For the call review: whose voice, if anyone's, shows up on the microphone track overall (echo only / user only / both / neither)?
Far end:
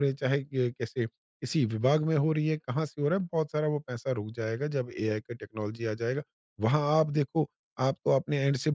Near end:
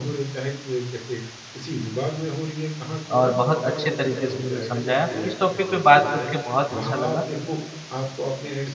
both